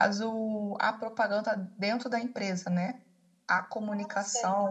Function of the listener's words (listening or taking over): listening